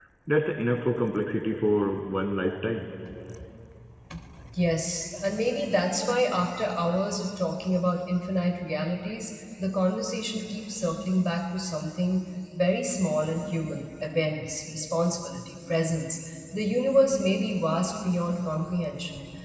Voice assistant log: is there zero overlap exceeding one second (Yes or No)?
Yes